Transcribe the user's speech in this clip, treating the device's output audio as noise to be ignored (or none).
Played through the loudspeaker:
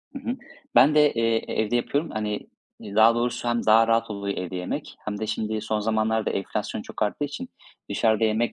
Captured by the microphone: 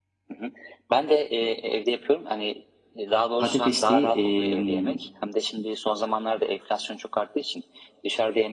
patatesli, emm,